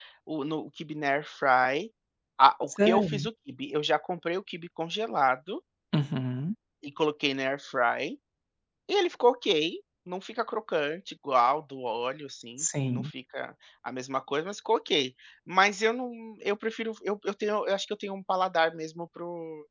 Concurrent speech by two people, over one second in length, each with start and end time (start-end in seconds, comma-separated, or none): none